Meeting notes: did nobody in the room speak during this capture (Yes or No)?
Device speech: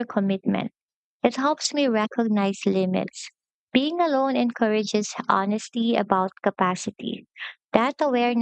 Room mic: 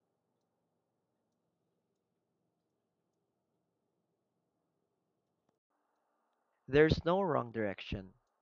No